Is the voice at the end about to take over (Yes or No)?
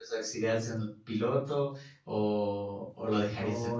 Yes